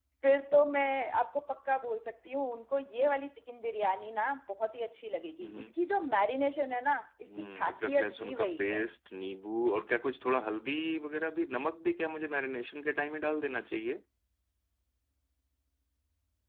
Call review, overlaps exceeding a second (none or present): present